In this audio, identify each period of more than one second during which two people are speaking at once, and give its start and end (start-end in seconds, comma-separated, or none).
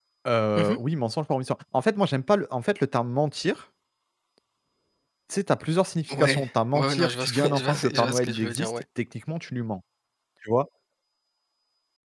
6.1-8.8